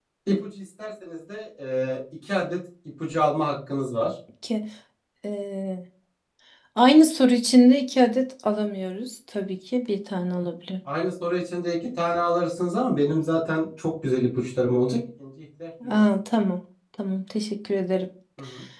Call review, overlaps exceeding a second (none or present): none